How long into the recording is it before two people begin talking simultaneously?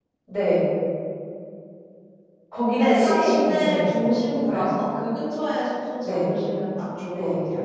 2.8 s

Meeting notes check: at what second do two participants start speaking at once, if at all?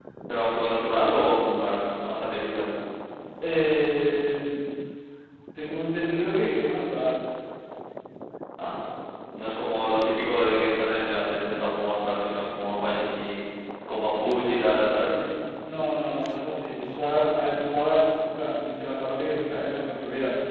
none

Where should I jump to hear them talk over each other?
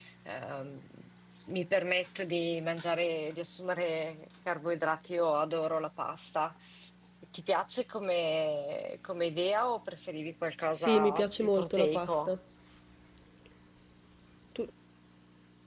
10.7 s

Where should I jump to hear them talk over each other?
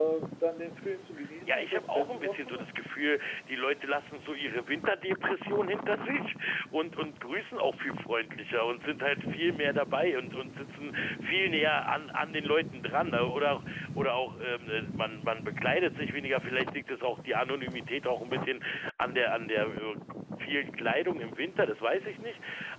1.5 s

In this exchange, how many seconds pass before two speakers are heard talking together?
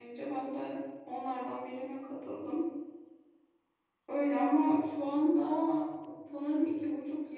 none

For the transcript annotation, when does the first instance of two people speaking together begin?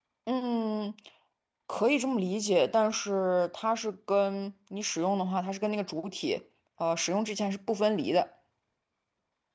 none

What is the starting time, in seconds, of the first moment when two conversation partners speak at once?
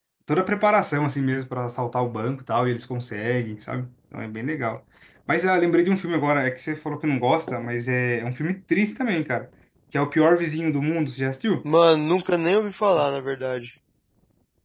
none

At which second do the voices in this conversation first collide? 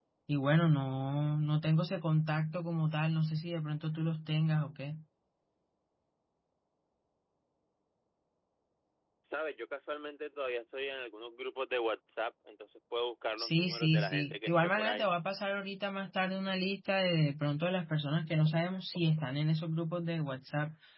13.4 s

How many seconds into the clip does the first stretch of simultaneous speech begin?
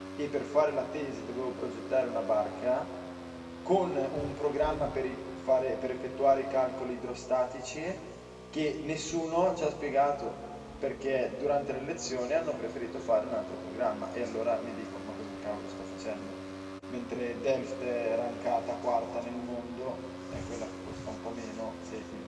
none

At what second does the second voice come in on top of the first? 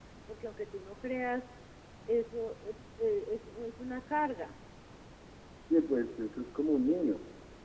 none

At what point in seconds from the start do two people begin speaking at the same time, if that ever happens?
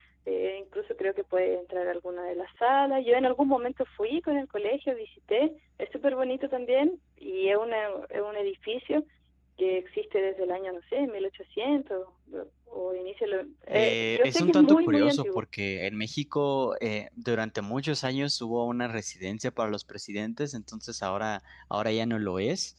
13.7 s

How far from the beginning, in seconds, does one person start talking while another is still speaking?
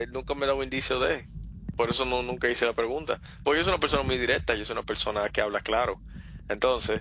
none

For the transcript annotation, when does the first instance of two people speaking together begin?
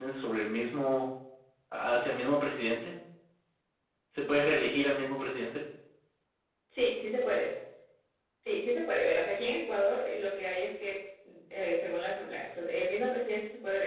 none

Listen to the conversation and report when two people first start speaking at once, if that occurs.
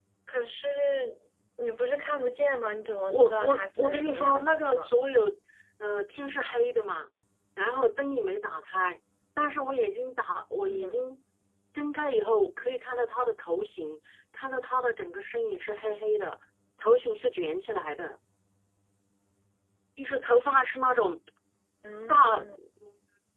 3.1 s

